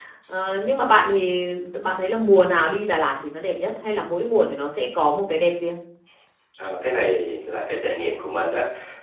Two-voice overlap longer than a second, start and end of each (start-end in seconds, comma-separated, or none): none